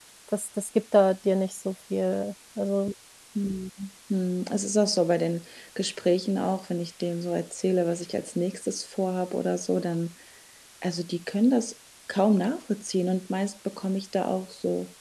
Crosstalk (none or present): none